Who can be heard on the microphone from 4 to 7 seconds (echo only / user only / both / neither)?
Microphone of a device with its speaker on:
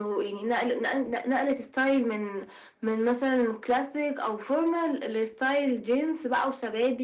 echo only